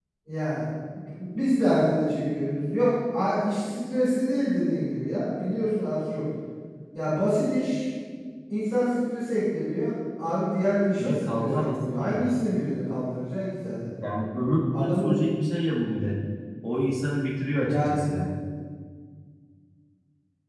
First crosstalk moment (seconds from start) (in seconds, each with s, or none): 11.0 s